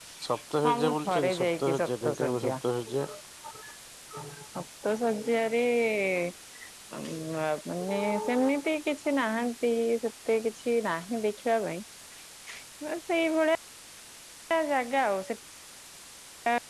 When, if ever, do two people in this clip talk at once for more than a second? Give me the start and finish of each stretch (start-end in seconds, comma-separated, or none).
0.7-2.5